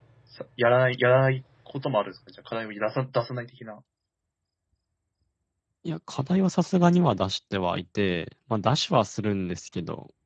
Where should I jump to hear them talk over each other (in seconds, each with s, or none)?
none